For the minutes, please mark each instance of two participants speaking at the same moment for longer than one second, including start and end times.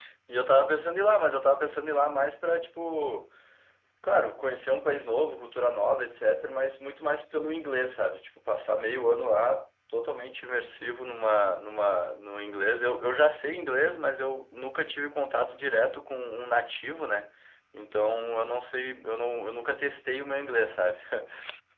none

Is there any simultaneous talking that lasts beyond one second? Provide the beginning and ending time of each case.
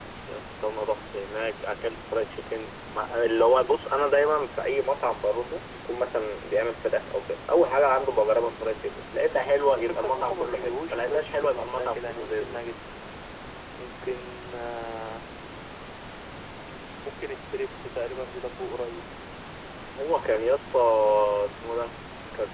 9.6-12.6

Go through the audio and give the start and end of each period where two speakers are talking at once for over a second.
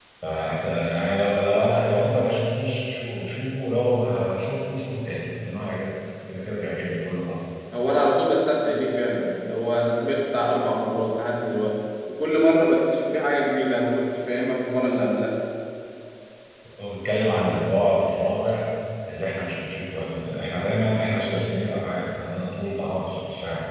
none

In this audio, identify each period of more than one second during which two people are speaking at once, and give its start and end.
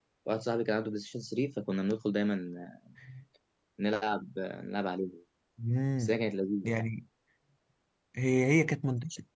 none

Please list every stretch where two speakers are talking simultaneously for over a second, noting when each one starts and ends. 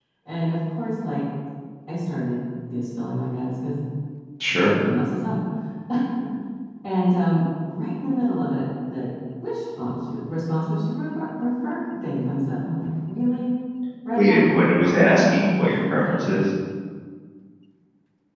14.9-16.1

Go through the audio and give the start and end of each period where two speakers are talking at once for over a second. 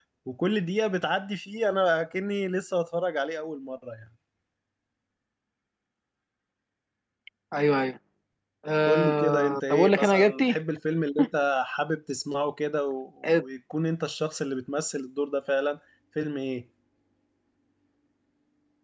8.8-10.6

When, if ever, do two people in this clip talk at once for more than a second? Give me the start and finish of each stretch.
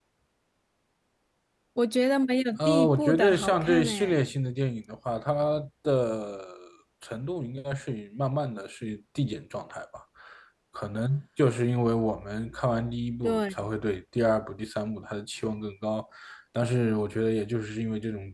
2.6-4.2

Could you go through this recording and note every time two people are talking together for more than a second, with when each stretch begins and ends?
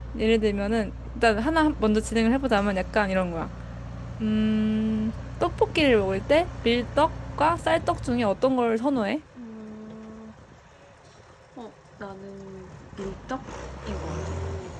none

